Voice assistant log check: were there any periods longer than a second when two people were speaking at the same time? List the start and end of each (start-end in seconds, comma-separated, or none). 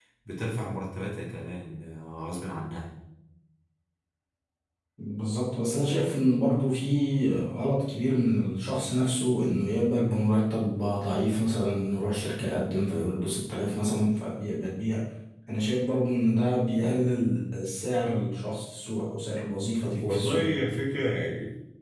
none